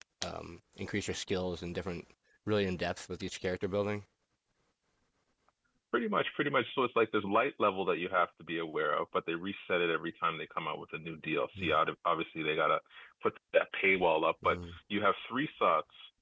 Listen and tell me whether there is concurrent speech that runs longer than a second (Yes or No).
No